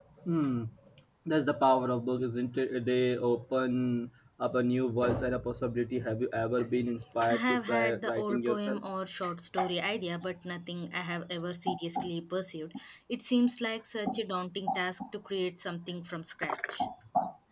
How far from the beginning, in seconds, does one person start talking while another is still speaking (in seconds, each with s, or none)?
7.3 s